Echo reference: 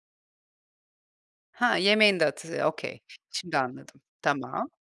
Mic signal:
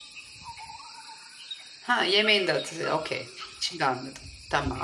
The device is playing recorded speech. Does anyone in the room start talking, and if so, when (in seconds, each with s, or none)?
none